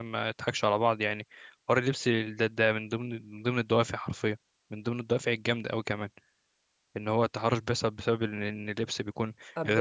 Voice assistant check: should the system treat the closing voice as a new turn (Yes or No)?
No